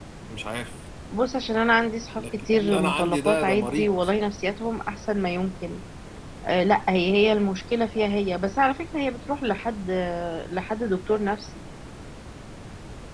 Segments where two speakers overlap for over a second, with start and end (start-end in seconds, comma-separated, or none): 2.2-3.9